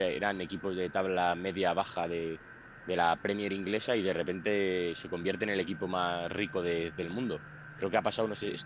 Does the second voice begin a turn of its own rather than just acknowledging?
No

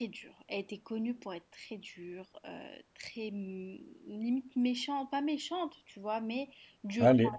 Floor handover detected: No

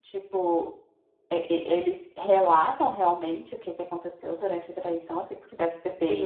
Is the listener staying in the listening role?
No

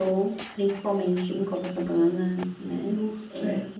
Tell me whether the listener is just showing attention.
No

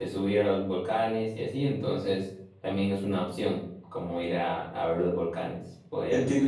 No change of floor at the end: No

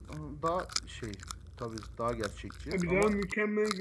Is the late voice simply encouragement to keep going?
No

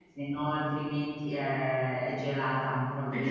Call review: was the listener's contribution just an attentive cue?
No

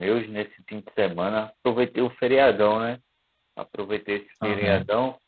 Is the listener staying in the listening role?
Yes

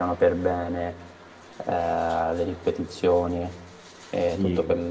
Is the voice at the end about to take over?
No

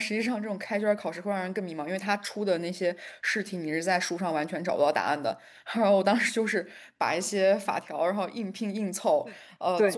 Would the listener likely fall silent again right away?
Yes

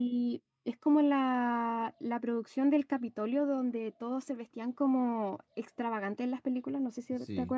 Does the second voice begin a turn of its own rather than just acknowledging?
Yes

